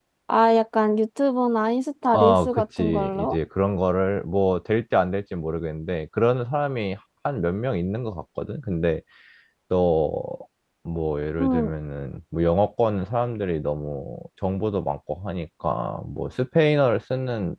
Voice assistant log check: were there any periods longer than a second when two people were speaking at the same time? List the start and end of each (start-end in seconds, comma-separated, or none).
2.1-3.4